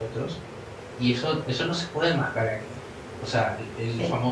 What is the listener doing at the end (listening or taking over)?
listening